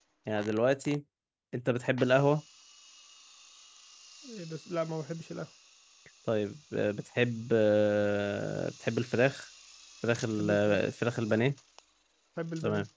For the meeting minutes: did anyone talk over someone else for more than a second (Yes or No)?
No